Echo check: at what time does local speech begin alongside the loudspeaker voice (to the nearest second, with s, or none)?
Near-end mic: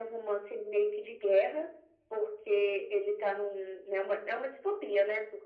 none